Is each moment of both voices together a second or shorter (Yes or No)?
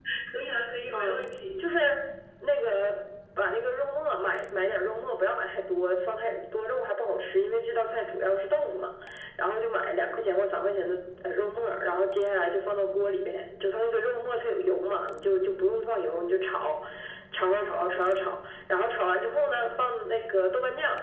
Yes